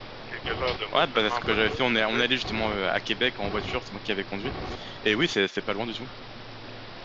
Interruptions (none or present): present